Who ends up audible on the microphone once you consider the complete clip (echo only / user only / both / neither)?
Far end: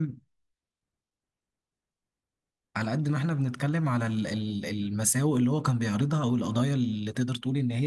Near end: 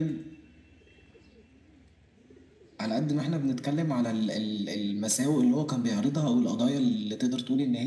echo only